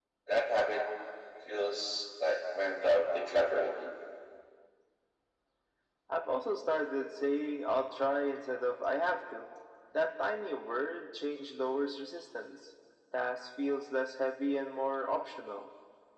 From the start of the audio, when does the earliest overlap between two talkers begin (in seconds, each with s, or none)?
none